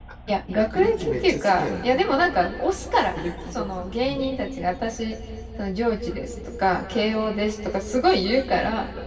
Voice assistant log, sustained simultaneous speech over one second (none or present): present